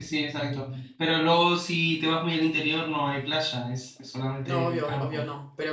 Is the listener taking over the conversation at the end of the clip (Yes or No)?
Yes